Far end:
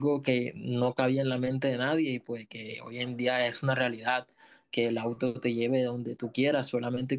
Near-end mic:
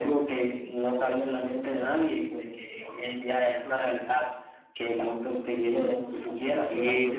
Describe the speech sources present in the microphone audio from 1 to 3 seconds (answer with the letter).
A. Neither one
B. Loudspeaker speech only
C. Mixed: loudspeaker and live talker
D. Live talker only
B